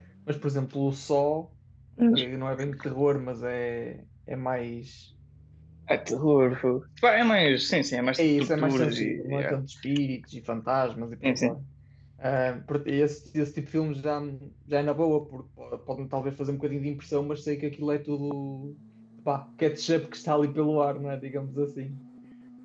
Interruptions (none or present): present